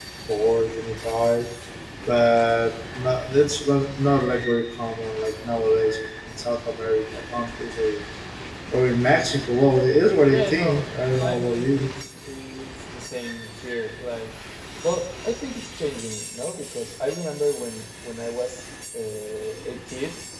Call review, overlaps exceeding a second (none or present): present